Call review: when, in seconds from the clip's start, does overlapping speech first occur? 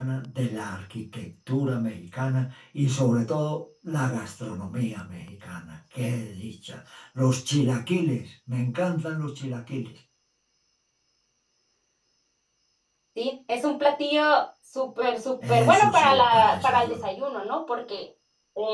16 s

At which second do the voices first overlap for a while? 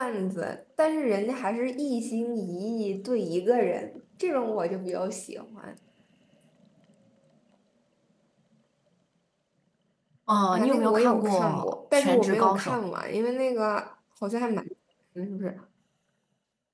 11 s

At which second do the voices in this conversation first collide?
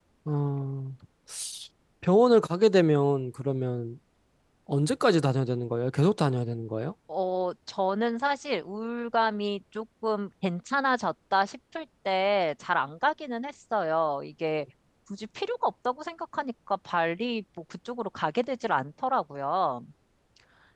none

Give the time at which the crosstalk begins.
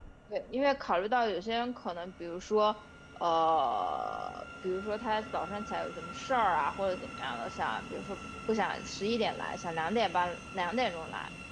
none

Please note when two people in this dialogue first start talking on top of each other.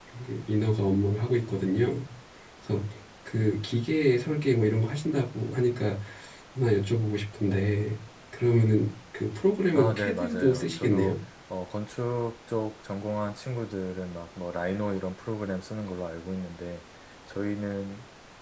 10 s

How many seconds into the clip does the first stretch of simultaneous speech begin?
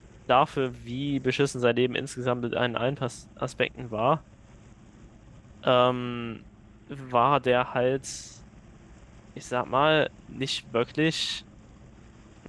none

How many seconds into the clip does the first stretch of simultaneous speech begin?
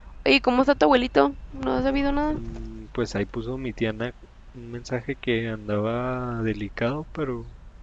none

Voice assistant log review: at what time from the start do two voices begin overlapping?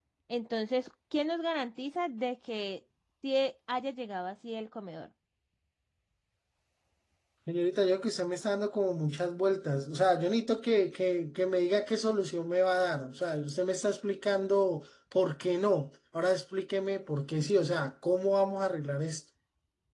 none

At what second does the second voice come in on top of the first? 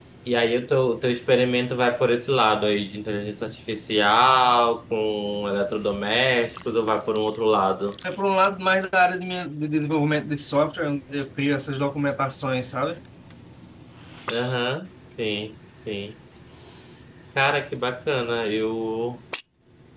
none

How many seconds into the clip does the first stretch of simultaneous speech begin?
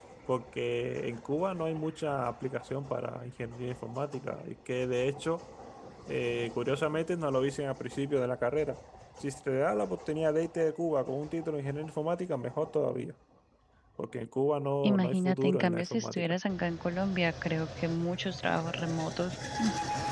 15 s

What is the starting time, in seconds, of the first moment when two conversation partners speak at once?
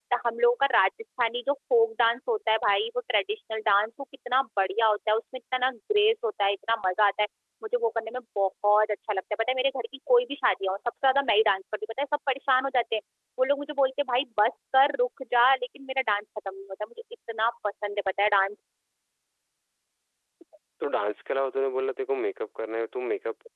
none

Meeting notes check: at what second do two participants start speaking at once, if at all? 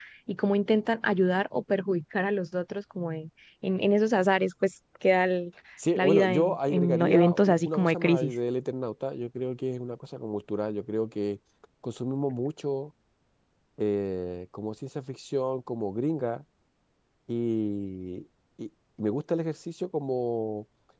6 s

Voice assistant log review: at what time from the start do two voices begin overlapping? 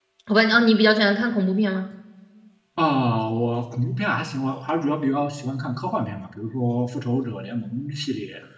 none

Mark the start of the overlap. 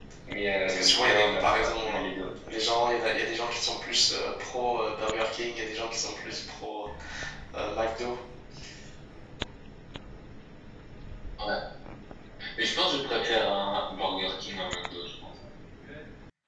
1 s

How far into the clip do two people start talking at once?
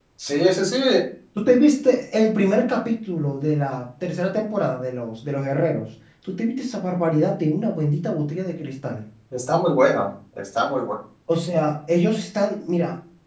none

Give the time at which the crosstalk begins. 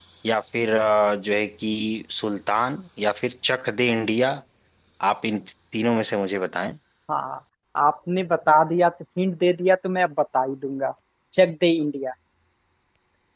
none

